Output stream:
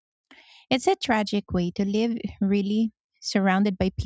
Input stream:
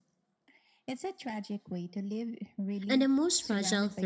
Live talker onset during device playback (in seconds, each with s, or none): 2.9 s